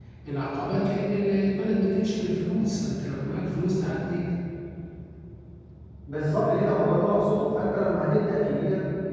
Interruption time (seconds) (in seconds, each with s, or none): none